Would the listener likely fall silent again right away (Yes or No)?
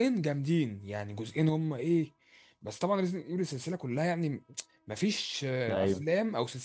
Yes